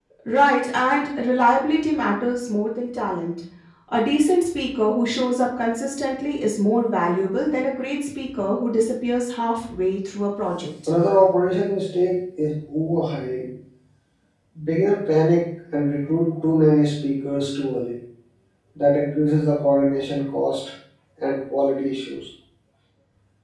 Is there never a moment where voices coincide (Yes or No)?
Yes